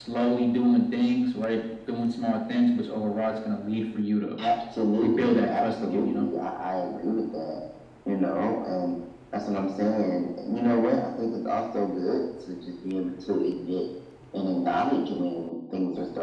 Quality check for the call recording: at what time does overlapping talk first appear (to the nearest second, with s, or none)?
5 s